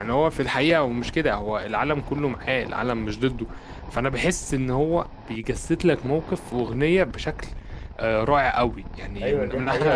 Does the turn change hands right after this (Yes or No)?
Yes